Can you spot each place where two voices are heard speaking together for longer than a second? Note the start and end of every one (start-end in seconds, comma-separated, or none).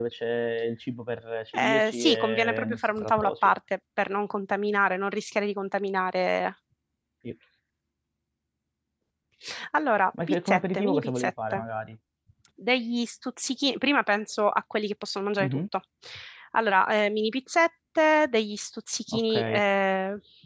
1.5-3.5, 10.3-11.6